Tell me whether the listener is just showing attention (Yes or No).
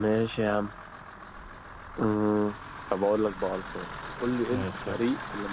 Yes